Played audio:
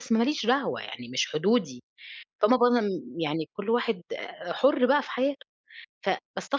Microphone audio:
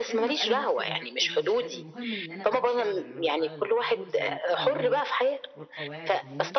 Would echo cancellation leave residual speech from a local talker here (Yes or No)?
Yes